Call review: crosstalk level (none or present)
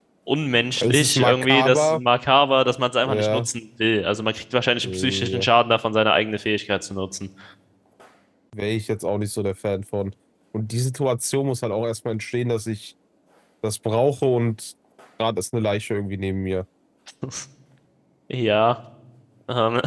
present